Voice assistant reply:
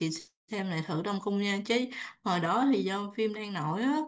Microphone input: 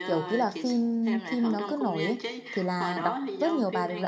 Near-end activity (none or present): present